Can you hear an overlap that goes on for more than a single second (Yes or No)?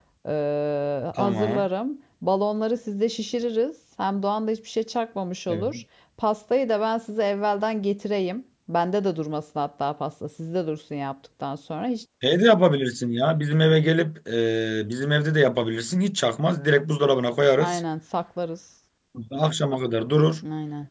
No